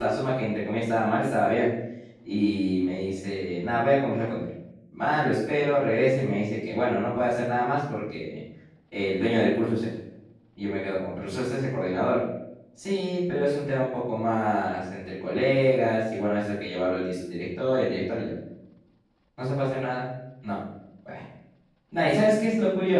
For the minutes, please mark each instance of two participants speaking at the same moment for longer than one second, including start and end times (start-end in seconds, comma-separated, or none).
none